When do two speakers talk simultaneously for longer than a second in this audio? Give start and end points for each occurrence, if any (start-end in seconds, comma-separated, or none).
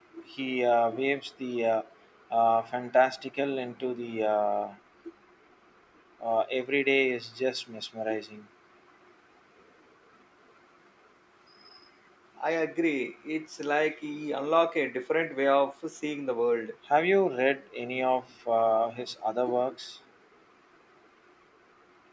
none